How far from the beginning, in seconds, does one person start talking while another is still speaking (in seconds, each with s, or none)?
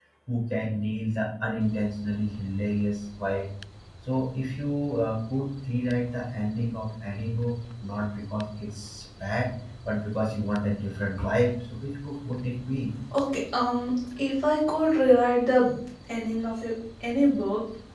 none